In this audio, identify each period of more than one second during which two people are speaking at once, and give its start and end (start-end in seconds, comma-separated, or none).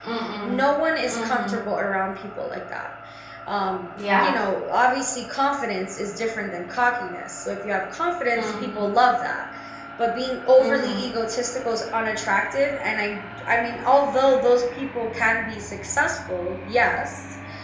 none